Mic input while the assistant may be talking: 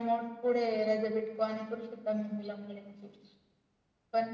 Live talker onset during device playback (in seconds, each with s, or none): none